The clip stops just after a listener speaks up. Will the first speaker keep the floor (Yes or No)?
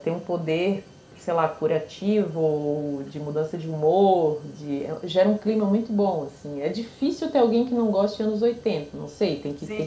No